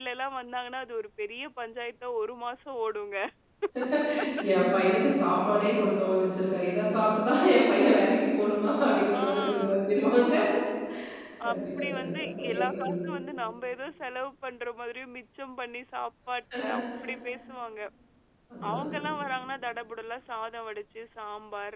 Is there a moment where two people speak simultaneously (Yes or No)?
Yes